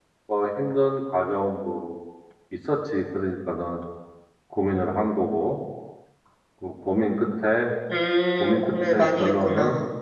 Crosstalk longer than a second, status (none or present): present